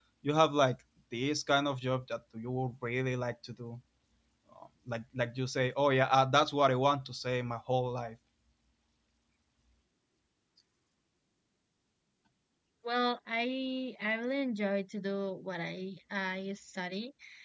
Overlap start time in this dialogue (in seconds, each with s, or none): none